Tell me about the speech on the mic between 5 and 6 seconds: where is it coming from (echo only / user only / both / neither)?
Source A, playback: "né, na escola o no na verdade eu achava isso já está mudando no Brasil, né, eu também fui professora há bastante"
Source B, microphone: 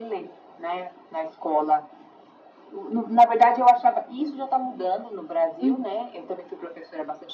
both